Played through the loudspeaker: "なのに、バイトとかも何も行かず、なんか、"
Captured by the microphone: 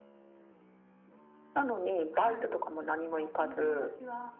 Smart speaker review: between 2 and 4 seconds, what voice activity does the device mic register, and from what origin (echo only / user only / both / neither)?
both